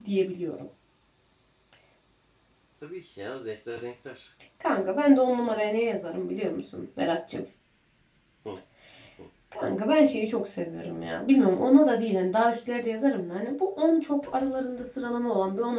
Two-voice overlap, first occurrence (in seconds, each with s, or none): none